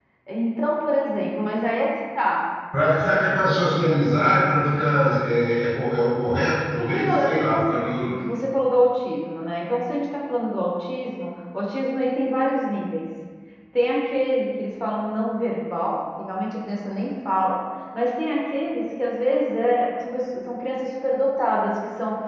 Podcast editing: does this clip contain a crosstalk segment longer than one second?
Yes, from 6.8 s

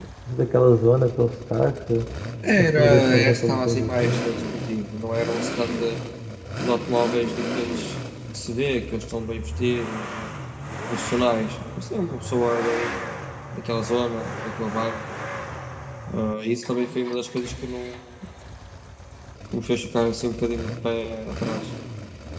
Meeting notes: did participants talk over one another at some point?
Yes, from 2.6 s

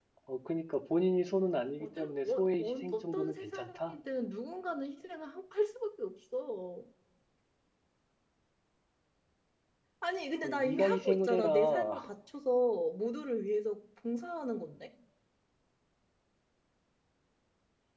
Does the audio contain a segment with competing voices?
Yes, from 1.8 s

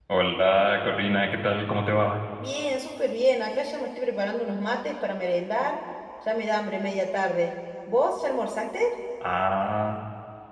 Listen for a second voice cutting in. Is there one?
No

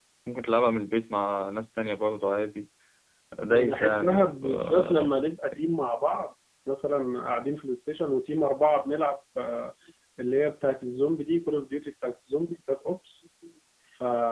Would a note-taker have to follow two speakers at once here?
Yes, from 3.5 s

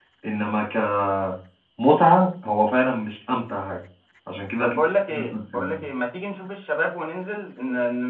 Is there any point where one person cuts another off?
Yes, from 4.6 s

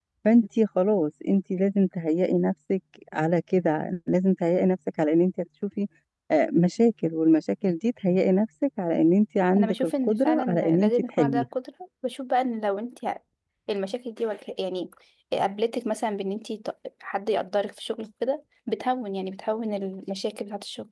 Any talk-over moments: Yes, from 9.6 s

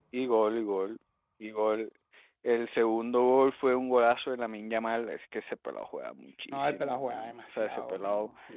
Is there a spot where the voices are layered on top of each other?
Yes, from 6.5 s

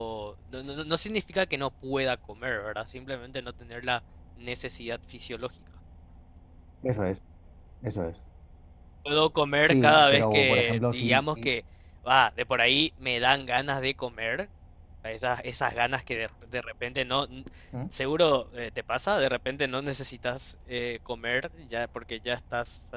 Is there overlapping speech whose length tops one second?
Yes, from 9.7 s

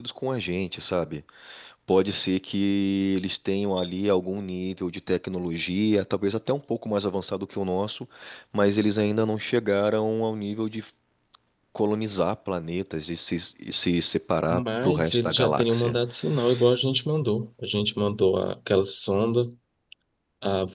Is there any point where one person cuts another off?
Yes, from 14.5 s

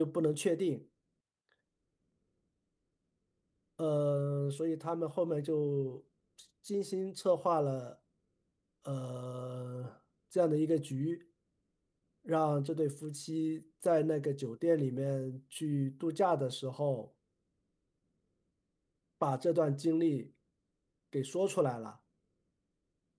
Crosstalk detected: No

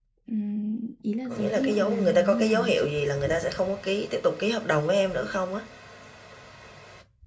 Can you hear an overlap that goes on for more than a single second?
Yes, from 1.3 s

